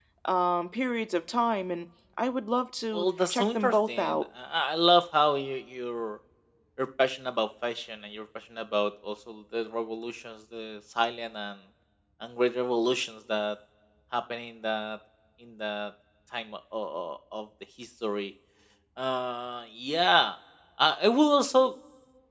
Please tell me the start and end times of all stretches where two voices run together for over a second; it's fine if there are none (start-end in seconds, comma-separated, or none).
2.9-4.2